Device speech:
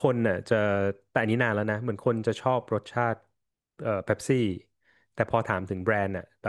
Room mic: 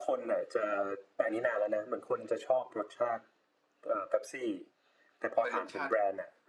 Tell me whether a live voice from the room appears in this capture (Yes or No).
Yes